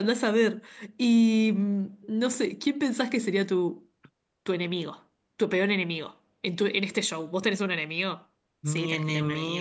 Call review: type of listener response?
taking over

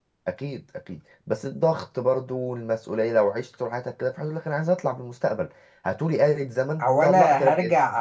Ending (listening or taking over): taking over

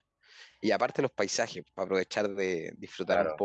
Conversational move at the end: listening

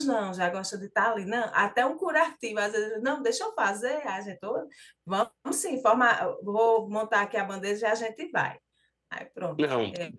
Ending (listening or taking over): taking over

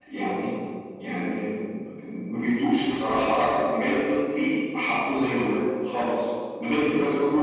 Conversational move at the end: listening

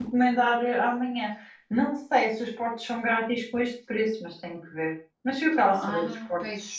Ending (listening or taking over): taking over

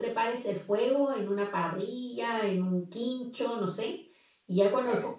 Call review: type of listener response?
listening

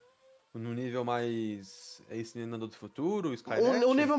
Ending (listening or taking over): taking over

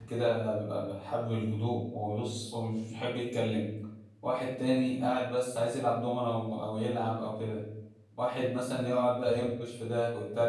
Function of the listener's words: listening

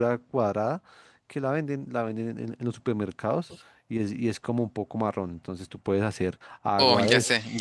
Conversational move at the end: taking over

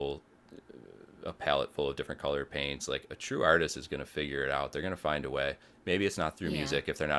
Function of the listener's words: listening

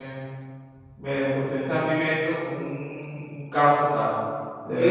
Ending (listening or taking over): taking over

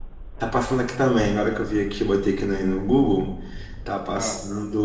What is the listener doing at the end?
listening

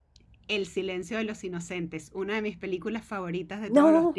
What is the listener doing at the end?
taking over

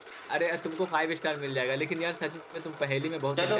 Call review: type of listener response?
taking over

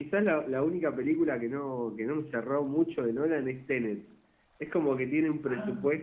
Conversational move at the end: listening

